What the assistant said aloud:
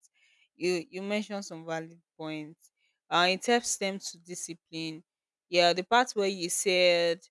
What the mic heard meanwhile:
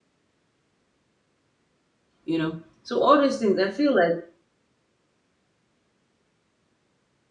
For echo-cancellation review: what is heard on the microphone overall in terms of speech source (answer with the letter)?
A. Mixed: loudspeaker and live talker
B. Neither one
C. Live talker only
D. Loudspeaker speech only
C